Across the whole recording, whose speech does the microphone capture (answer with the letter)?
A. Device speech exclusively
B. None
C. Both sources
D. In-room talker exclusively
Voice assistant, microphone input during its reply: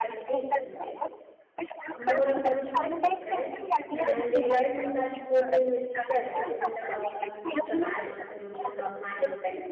C